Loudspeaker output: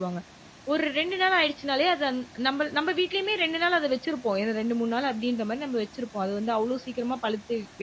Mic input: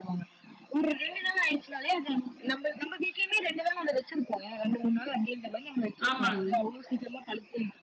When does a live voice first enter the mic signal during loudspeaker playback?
6 s

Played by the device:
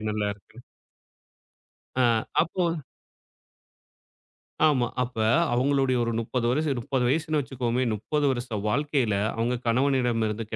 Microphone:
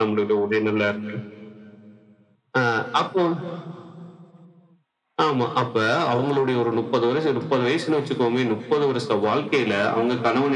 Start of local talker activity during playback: none

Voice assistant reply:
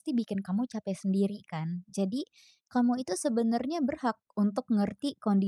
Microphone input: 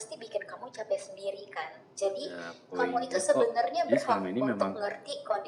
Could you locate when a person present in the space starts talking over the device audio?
2 s

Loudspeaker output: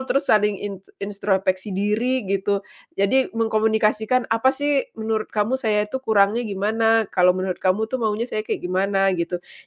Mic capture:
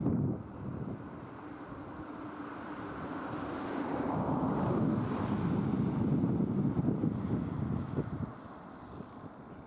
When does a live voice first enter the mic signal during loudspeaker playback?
none

